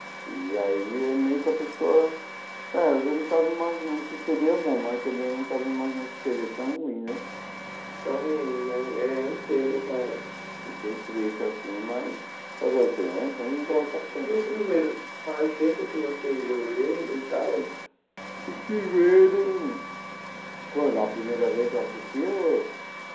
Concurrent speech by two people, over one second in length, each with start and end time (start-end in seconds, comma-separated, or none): none